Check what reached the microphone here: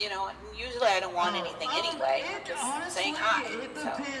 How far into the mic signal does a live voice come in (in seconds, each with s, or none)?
1.2 s